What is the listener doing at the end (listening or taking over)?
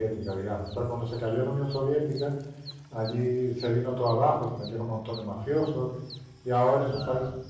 listening